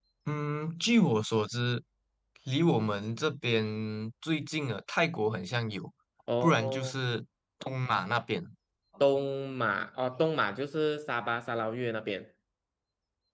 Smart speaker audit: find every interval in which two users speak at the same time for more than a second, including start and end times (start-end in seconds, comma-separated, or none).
none